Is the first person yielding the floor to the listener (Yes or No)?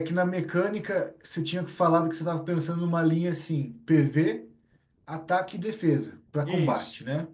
Yes